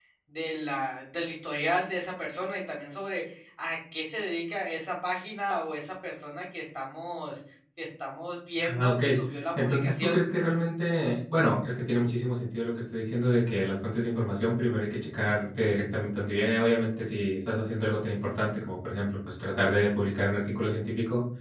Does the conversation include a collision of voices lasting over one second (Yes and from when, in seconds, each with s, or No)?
Yes, from 8.6 s